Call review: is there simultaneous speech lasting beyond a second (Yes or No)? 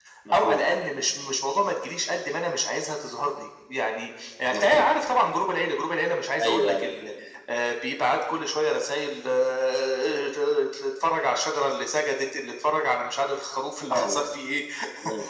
No